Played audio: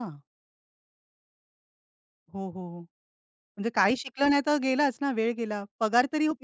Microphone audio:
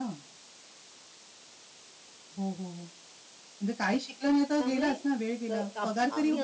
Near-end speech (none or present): present